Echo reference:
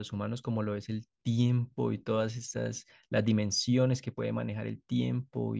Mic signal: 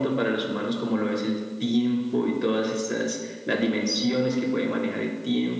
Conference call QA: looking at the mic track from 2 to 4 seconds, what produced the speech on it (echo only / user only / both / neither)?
echo only